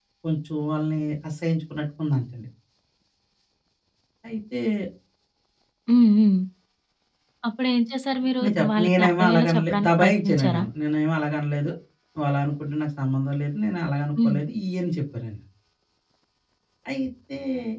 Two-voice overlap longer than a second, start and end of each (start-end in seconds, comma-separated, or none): 8.4-10.6